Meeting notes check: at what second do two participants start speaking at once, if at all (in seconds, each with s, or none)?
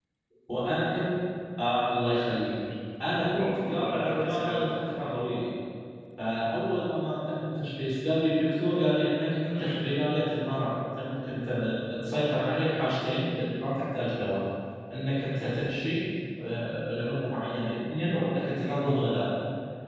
3.4 s